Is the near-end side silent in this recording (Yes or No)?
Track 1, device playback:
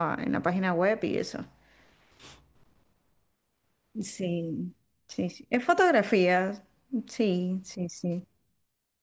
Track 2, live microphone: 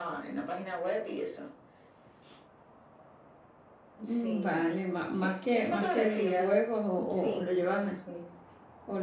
No